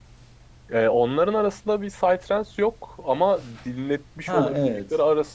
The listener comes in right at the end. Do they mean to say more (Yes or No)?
No